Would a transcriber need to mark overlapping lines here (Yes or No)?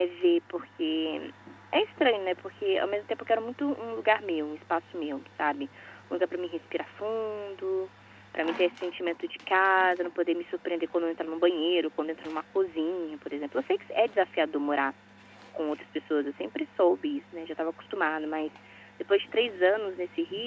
No